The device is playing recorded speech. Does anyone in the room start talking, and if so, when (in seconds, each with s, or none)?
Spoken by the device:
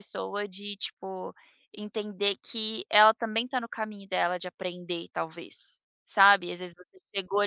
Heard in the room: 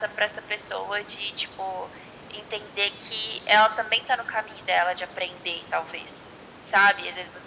none